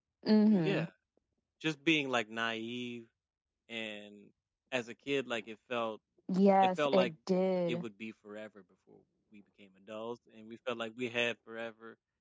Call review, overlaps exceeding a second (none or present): none